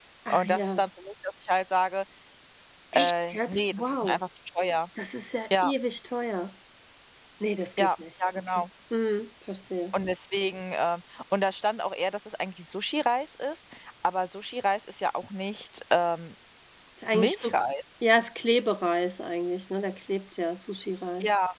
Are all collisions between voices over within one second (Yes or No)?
No